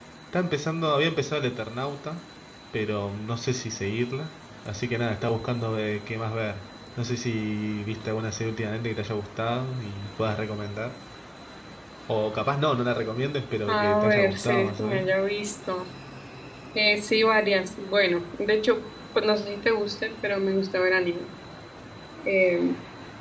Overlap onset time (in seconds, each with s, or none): 13.7 s